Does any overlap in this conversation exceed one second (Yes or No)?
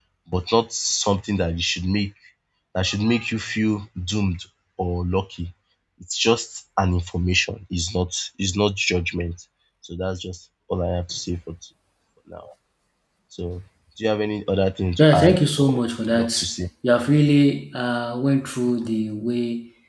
Yes